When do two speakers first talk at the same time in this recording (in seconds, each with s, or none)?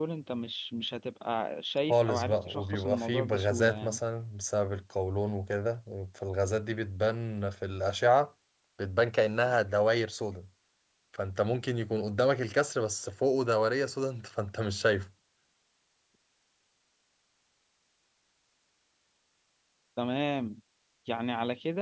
1.9 s